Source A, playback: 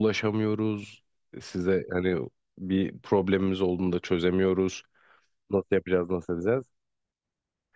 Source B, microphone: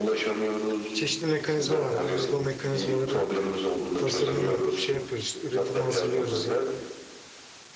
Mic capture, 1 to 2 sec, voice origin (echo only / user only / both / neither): both